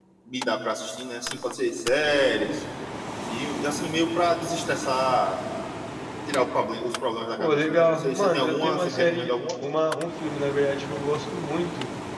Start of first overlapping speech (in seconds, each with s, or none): 7.4 s